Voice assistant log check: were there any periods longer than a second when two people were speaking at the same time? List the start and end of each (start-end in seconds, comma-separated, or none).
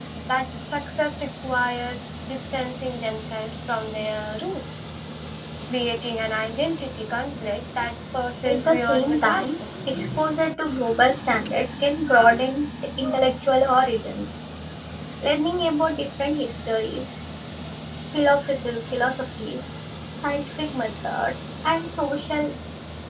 8.4-9.7